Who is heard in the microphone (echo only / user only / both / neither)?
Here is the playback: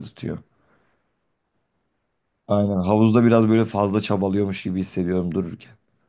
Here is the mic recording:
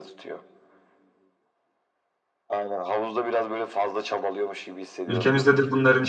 both